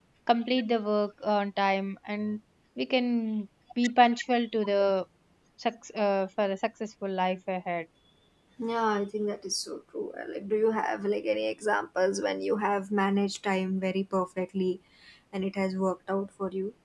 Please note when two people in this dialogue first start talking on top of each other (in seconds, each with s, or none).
none